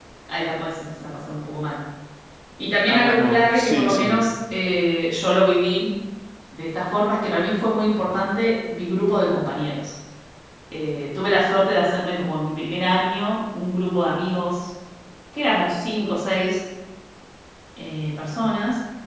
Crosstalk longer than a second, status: present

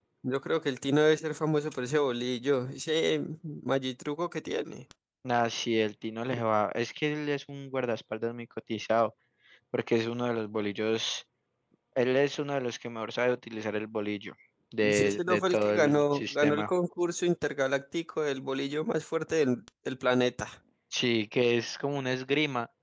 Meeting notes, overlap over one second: present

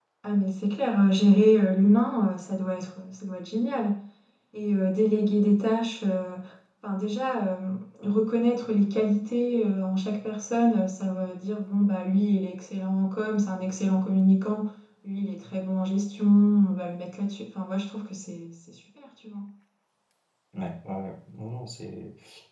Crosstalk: none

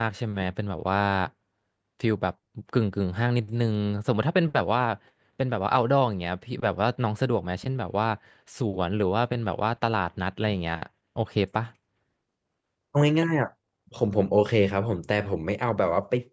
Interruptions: none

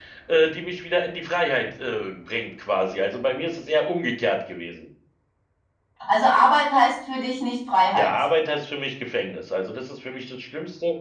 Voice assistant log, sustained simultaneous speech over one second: none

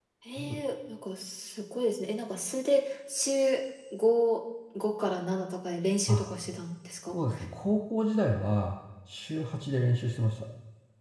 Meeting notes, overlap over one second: none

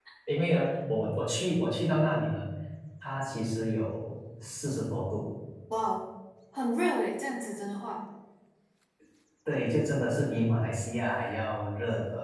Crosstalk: none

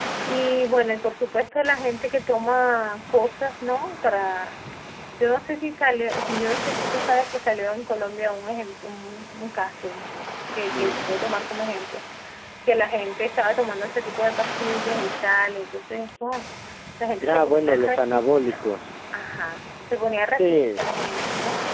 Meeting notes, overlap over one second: present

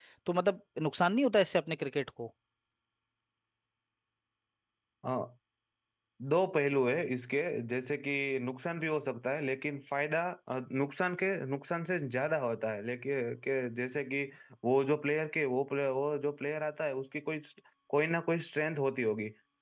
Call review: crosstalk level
none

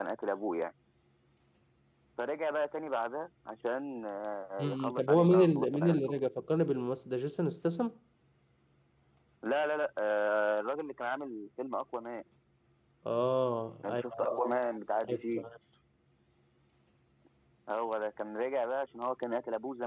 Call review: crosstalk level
present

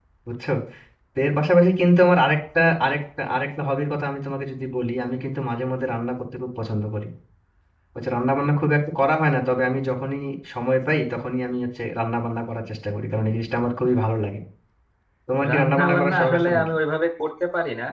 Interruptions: present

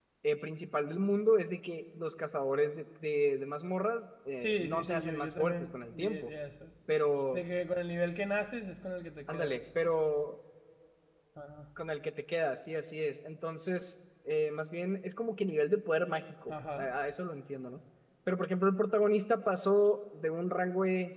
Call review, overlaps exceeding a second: present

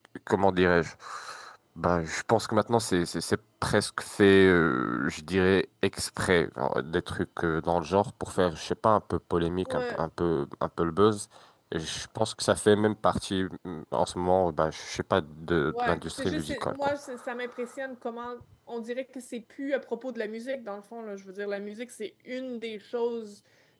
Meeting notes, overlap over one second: present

